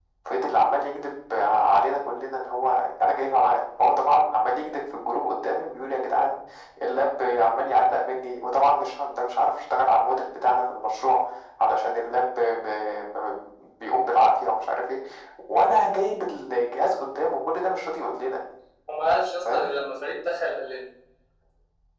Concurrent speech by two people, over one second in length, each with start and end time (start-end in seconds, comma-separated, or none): none